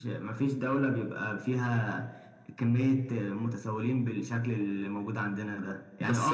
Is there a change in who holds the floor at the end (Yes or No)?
No